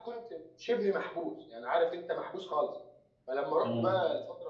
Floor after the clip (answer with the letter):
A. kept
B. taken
A